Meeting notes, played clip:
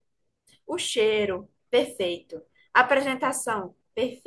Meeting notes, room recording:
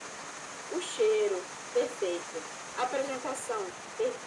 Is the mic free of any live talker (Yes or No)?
Yes